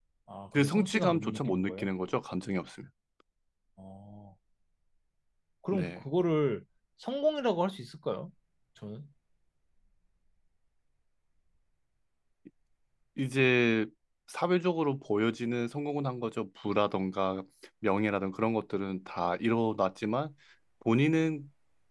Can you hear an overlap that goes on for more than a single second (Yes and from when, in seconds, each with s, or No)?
Yes, from 0.5 s